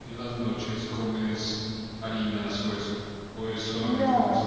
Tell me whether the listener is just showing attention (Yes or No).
No